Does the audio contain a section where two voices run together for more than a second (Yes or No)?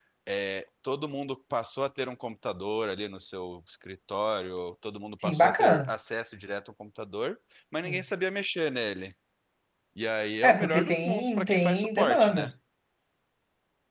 Yes